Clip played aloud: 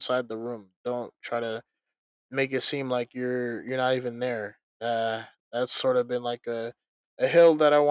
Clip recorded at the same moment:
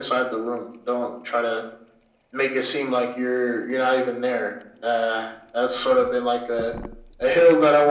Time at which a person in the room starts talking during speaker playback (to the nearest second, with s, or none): none